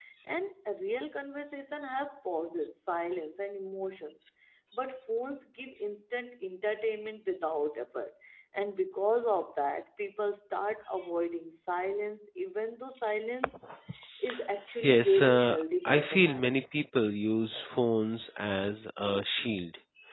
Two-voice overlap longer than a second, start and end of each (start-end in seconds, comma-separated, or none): 14.8-16.6